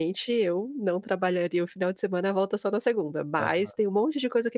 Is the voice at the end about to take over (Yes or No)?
No